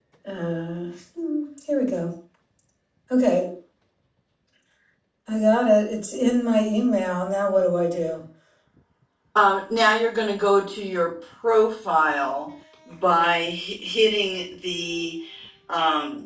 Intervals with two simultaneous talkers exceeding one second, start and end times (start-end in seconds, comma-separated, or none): none